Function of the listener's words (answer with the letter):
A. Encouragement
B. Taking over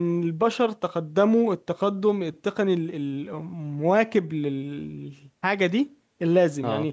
A